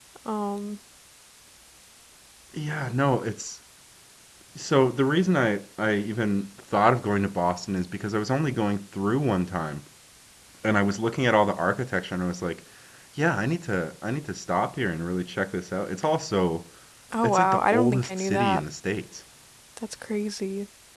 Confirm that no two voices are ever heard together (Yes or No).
No